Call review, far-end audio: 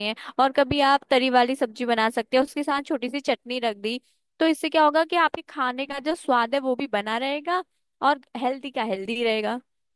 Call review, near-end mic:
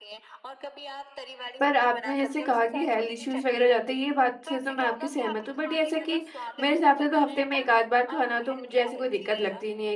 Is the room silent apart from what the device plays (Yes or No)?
No